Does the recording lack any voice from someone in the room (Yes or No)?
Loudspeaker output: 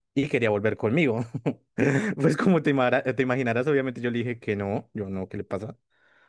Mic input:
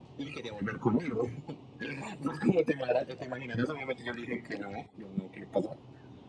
Yes